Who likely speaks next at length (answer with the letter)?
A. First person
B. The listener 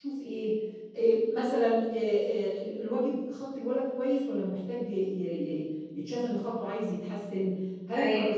A